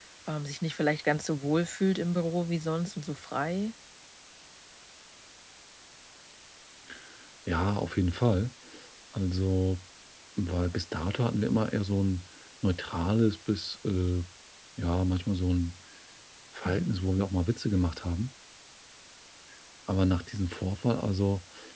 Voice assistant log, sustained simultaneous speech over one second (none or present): none